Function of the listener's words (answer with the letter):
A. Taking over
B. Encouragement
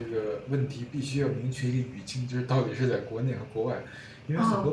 B